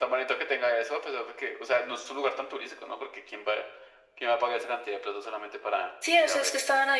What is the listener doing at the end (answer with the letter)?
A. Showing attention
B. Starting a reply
B